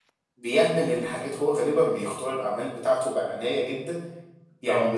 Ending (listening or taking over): listening